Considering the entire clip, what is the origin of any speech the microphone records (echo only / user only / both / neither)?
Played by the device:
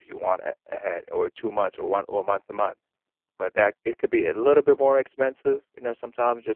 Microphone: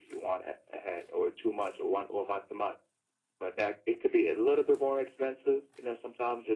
echo only